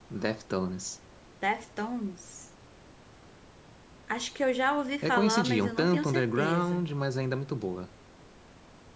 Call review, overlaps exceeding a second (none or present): present